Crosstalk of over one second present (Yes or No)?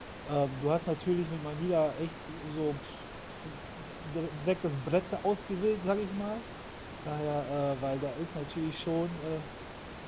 No